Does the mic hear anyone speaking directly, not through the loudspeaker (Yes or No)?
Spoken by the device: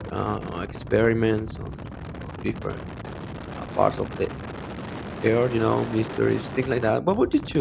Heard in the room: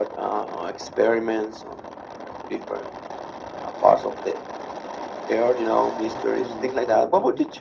Yes